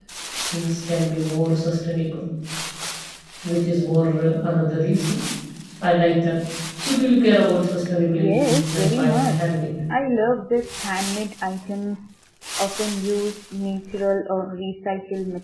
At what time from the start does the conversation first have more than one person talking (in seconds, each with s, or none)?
8.2 s